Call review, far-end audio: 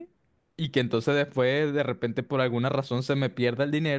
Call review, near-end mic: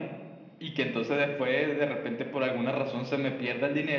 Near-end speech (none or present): none